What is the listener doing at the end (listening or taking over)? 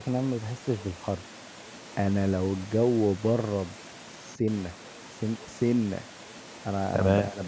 listening